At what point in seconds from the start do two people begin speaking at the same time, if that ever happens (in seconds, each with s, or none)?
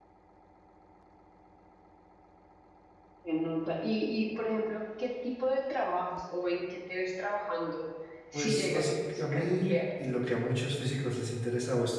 8.3 s